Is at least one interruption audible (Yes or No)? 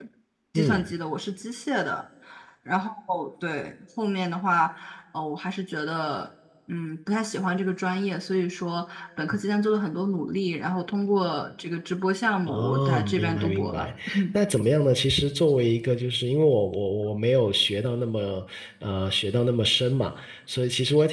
Yes